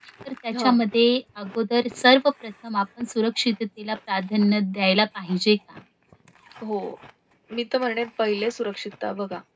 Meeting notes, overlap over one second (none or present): none